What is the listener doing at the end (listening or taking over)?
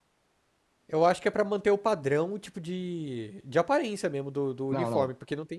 taking over